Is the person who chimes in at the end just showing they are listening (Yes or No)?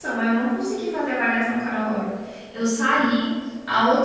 Yes